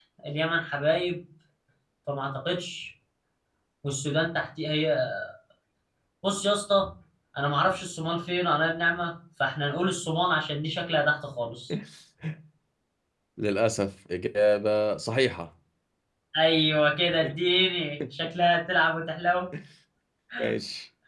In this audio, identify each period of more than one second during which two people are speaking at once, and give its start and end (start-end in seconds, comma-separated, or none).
none